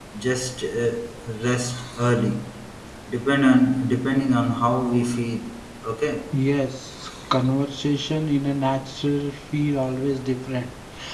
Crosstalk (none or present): none